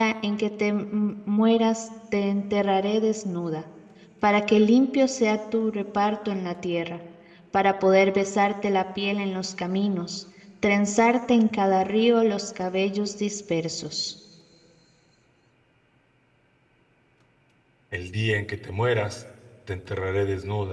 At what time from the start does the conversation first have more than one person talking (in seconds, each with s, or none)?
none